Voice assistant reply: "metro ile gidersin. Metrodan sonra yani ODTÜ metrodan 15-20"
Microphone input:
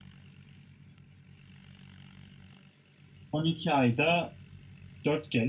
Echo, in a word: none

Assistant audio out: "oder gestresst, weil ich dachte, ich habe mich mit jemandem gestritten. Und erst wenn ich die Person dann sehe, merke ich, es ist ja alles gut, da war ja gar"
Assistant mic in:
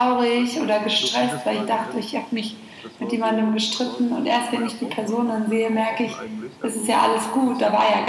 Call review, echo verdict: present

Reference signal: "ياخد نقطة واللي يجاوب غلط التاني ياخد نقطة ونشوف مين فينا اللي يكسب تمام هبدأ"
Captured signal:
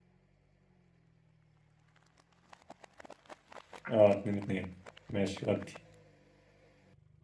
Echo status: none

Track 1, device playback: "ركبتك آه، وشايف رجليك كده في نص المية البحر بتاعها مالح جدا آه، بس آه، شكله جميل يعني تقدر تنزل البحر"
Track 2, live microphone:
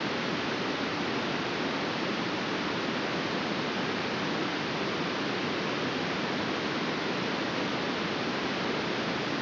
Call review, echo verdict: none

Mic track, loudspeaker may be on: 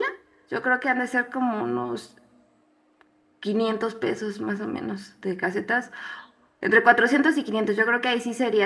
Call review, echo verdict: none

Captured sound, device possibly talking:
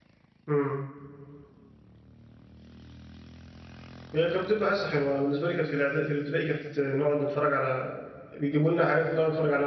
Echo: none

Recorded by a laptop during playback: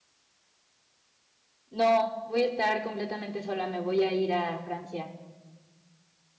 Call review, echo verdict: none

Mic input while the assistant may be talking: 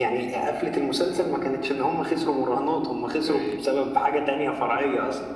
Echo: present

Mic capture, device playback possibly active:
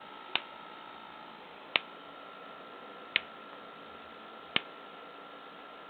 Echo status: none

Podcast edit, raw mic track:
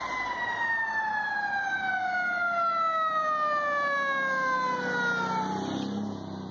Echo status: none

